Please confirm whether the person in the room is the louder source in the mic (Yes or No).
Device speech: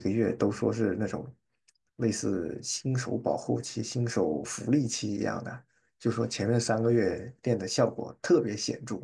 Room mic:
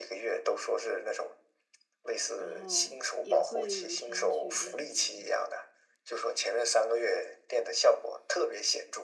No